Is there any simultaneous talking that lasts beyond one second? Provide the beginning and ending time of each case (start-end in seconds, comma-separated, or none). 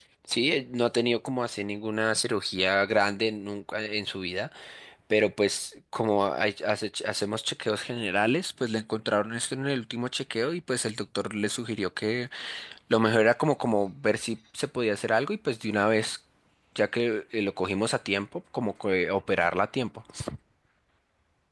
none